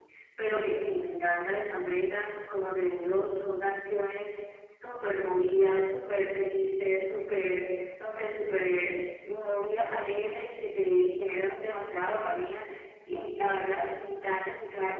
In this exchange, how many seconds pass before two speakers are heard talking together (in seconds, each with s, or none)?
none